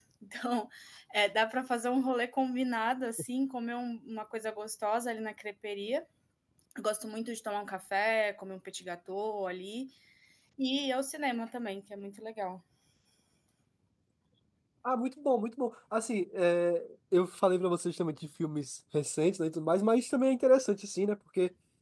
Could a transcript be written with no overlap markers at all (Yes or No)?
Yes